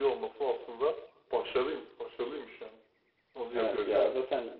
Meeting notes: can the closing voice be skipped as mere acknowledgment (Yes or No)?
No